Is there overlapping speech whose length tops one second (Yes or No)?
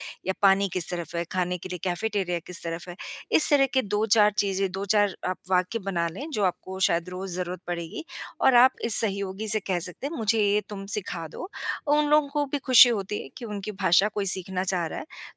No